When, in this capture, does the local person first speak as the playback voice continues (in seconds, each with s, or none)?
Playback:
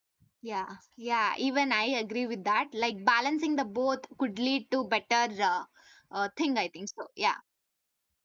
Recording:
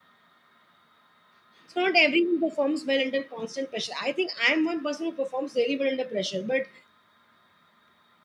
1.7 s